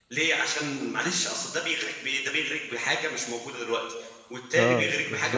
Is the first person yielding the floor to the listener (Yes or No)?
Yes